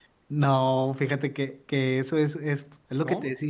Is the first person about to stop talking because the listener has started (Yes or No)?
No